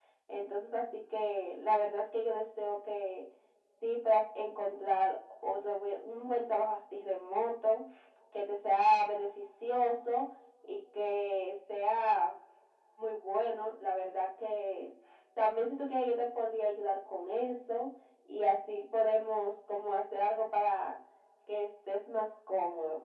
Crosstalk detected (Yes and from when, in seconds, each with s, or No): No